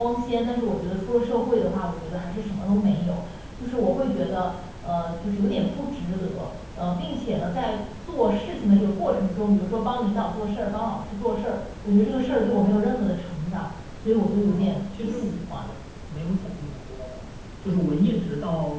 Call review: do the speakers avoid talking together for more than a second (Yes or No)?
No